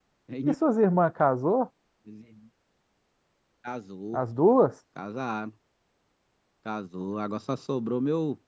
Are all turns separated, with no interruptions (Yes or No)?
Yes